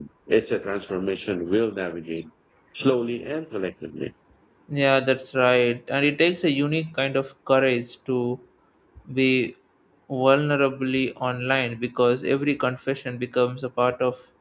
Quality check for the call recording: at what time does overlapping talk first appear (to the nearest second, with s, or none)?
none